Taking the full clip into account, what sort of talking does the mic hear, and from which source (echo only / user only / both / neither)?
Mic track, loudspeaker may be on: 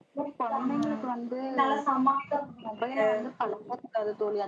both